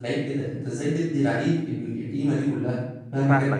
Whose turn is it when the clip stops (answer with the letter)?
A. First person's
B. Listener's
B